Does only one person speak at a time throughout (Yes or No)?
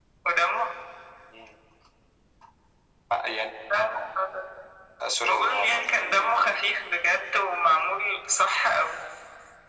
No